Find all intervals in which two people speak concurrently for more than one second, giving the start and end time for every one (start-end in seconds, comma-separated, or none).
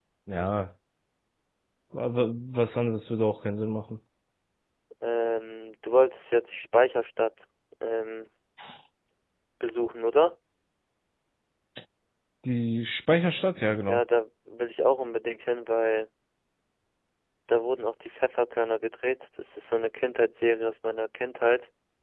none